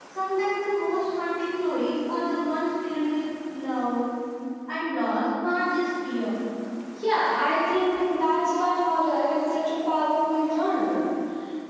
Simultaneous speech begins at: none

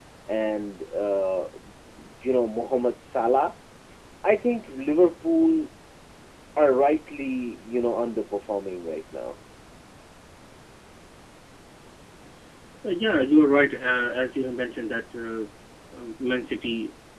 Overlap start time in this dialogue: none

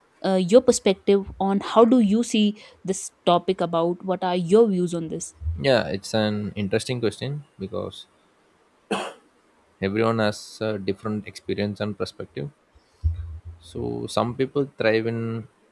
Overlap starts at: none

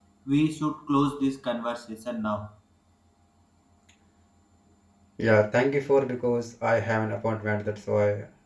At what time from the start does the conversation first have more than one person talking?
none

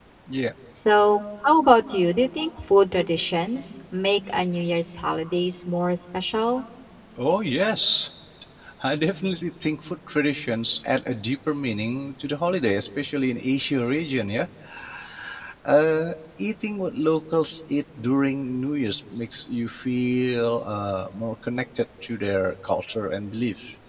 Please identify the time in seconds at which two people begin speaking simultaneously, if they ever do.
none

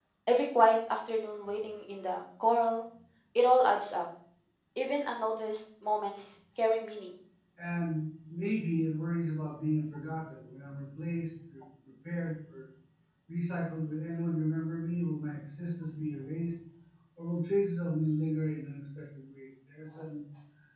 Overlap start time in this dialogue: none

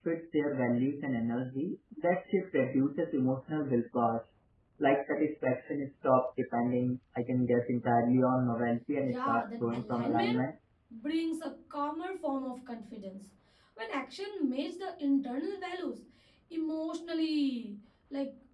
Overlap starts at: 9.0 s

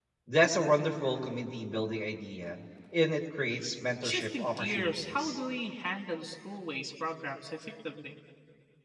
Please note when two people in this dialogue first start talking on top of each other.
4.0 s

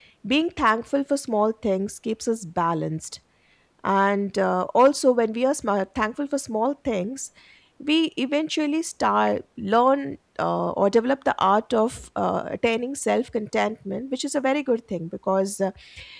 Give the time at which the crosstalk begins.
none

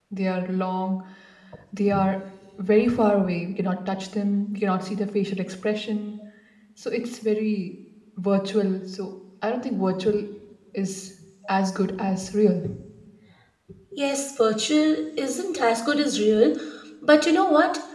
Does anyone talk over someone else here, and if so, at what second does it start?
none

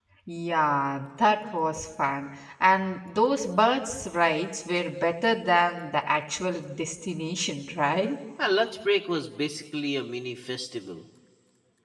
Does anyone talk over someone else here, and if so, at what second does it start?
none

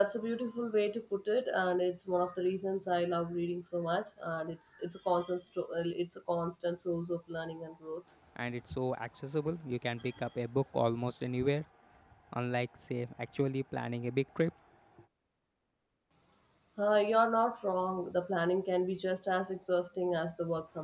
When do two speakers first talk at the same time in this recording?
none

